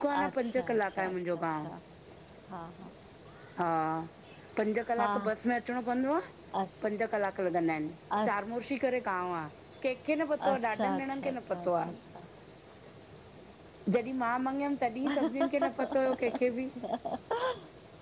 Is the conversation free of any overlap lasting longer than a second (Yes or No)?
No